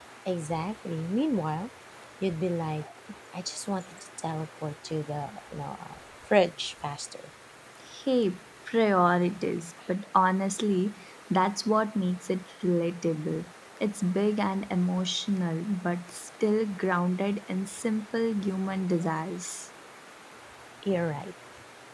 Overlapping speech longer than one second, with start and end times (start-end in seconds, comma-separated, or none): none